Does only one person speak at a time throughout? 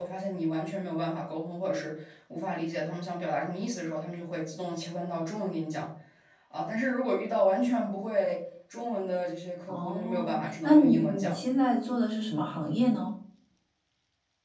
No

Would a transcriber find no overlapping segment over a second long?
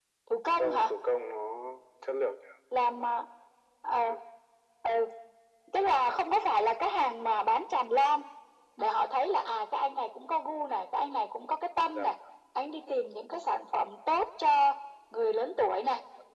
Yes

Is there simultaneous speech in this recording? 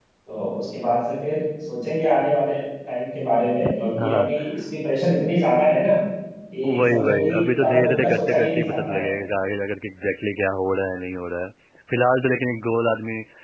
Yes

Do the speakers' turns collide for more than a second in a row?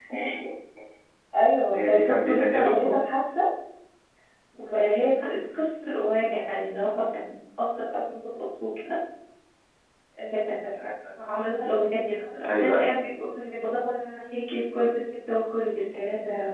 Yes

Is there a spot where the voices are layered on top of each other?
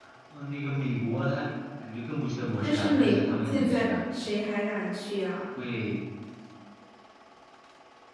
Yes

